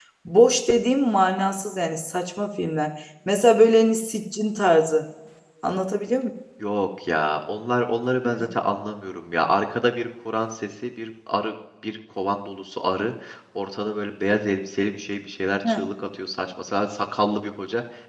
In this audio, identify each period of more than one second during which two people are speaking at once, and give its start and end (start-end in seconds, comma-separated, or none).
none